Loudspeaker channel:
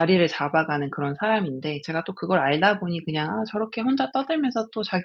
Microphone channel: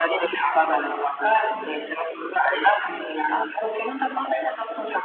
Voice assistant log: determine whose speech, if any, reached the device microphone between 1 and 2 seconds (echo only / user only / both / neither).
echo only